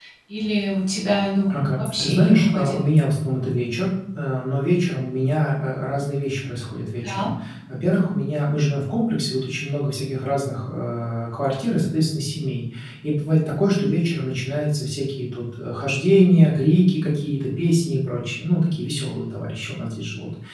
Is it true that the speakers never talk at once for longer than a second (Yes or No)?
No